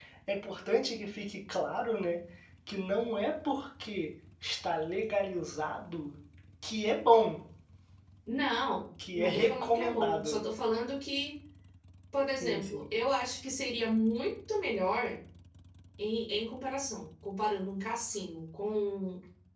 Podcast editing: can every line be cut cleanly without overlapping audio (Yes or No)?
No